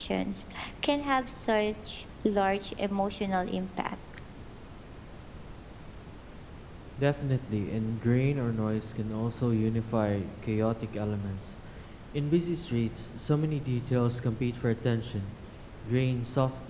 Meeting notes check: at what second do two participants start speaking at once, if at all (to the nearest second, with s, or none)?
none